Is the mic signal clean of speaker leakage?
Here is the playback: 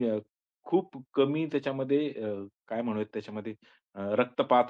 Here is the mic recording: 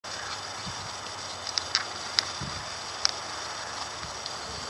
Yes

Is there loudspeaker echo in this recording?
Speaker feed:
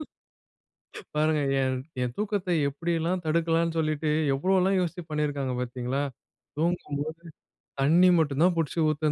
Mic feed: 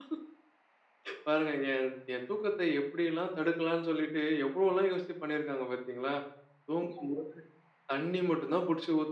Yes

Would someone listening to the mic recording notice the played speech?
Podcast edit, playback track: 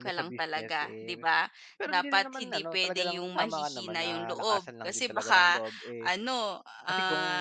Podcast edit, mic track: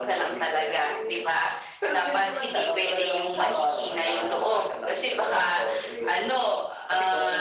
Yes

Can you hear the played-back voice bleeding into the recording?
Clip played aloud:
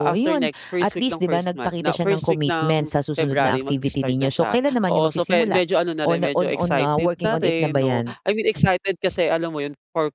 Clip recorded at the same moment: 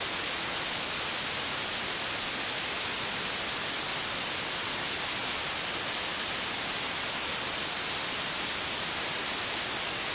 No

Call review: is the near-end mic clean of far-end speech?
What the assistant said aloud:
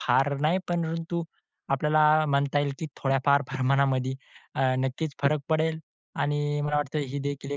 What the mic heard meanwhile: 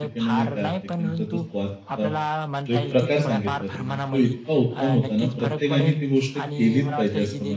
No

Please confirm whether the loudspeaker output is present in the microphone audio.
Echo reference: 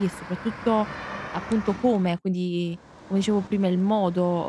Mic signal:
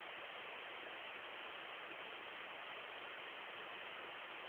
No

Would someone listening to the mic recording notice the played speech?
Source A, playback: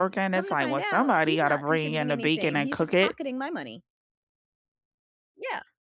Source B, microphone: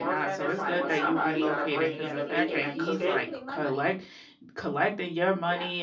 Yes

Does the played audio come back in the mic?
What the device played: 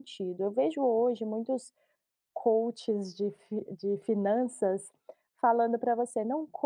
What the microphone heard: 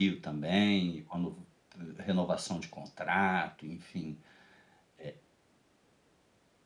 No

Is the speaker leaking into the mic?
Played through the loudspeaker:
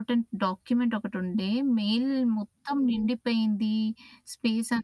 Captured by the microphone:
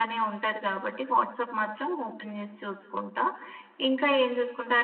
No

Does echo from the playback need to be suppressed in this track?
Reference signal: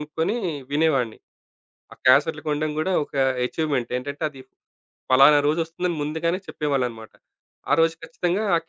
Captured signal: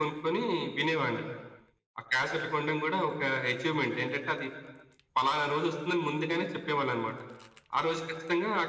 Yes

